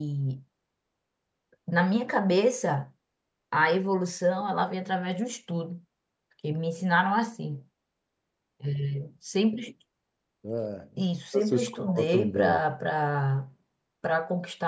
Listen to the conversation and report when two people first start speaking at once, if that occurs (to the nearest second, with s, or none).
11 s